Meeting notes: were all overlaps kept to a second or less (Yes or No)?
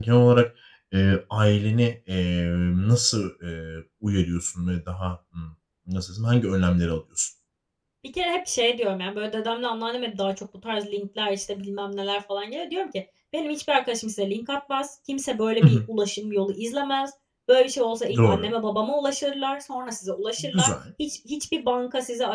Yes